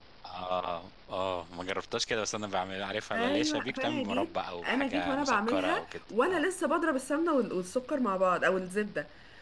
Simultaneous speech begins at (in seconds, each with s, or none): 3.1 s